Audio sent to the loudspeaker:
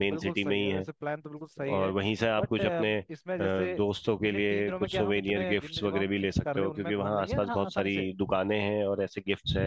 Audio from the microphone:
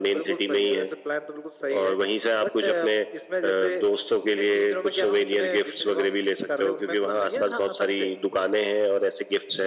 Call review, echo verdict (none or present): present